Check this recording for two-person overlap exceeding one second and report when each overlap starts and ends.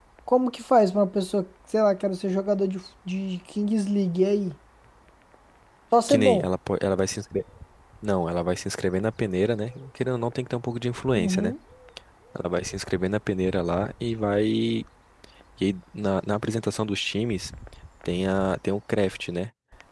none

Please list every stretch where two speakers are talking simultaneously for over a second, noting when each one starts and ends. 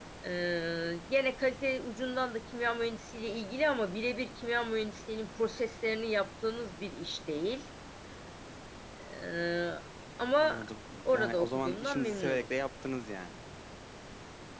11.1-12.5

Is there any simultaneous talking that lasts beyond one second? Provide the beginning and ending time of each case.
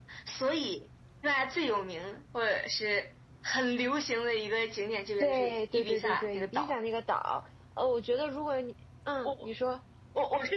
5.2-6.7

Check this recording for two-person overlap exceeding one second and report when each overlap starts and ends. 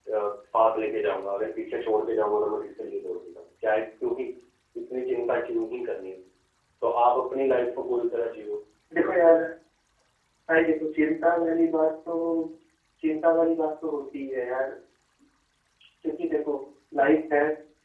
none

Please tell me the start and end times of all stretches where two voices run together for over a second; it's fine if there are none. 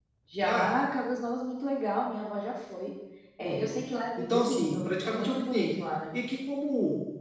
4.2-5.7

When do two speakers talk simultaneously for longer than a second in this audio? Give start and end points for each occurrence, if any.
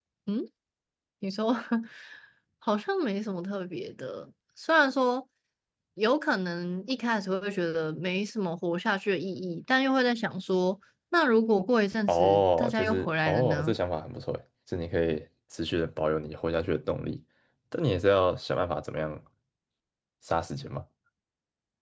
12.1-13.8

